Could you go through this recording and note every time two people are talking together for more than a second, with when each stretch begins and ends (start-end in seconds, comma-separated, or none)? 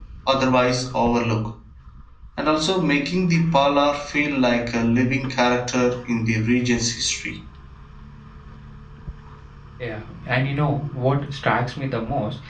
none